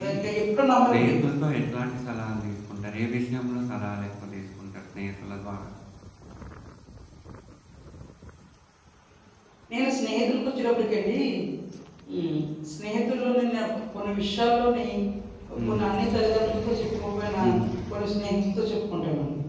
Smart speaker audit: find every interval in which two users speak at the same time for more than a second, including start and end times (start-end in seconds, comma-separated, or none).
none